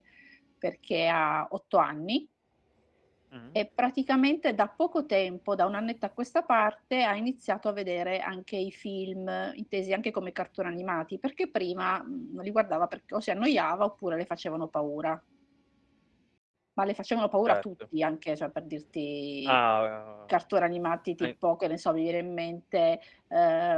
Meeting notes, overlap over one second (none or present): none